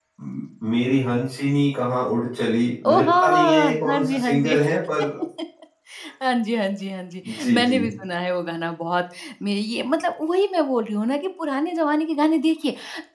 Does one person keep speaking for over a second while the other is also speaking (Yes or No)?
Yes